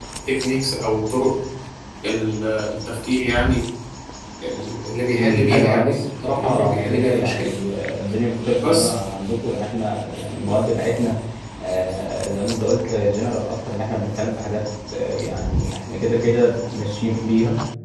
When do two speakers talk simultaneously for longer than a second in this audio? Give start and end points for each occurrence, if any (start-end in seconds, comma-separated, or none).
5.2-7.6